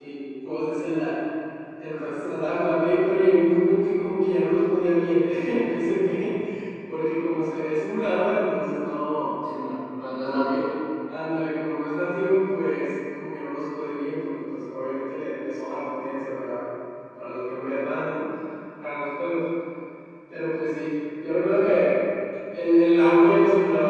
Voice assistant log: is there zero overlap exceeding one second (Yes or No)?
Yes